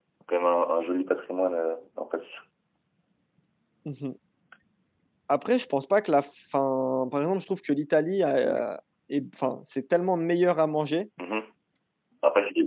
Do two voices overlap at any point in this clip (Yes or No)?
No